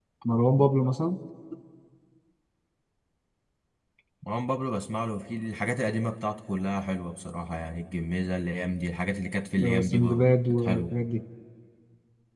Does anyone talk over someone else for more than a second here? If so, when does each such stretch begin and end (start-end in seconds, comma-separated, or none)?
9.6-10.9